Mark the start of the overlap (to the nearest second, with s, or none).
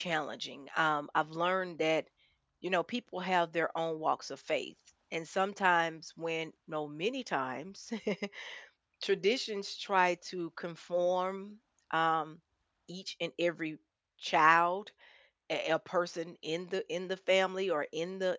none